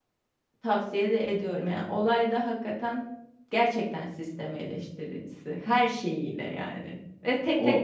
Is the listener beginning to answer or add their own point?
No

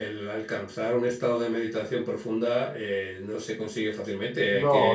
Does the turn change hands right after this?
No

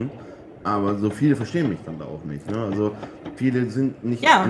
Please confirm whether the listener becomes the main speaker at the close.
No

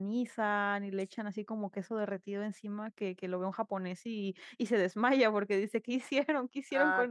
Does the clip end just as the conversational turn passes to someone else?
Yes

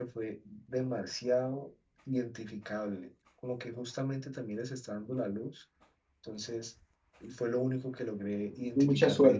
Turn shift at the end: Yes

